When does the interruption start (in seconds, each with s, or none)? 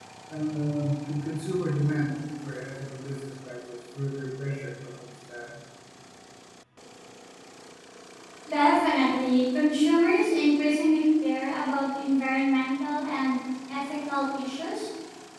none